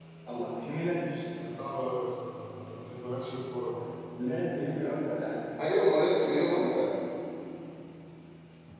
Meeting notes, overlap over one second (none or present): none